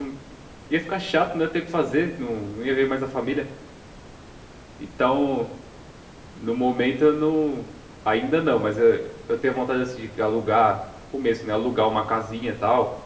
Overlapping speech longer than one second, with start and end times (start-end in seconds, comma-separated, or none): none